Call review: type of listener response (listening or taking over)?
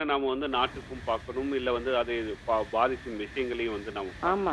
taking over